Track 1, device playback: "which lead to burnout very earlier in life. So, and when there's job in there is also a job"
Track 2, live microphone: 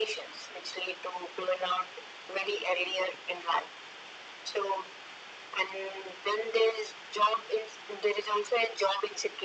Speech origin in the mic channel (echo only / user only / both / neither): echo only